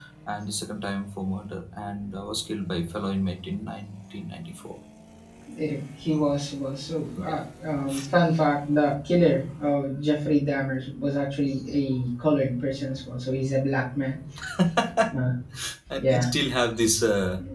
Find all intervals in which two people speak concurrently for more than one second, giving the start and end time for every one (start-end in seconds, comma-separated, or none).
none